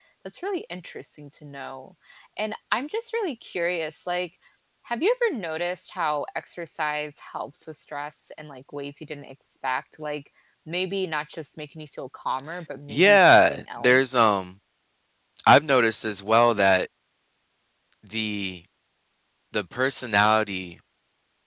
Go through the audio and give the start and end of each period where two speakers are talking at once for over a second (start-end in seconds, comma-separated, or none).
12.9-14.3